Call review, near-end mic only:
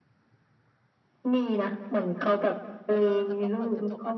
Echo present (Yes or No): Yes